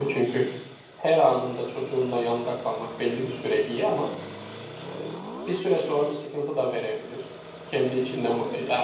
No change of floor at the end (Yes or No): Yes